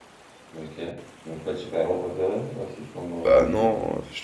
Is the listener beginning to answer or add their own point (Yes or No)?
Yes